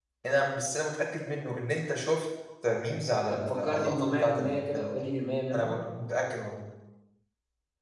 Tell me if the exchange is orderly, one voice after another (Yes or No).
No